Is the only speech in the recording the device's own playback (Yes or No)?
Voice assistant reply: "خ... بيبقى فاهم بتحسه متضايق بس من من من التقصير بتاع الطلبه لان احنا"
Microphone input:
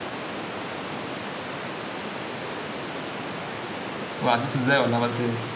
No